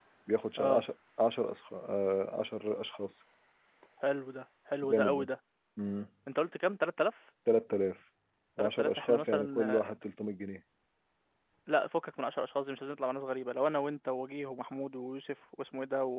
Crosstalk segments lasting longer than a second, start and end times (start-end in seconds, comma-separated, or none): 8.6-9.9